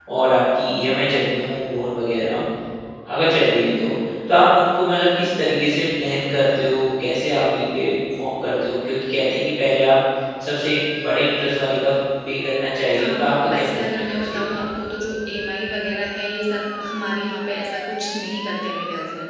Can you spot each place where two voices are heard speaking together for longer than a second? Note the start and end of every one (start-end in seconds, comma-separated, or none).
13.0-14.6